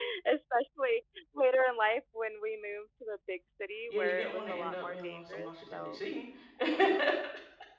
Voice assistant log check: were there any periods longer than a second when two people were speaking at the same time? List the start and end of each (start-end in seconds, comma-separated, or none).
3.9-6.0